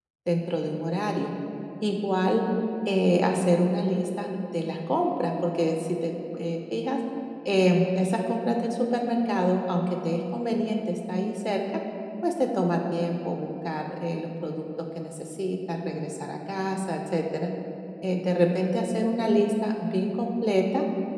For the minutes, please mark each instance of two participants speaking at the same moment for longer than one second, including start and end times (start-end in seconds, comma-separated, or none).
none